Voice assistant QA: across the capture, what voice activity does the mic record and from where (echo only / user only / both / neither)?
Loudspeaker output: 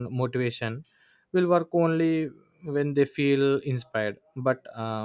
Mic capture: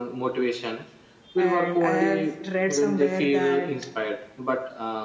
both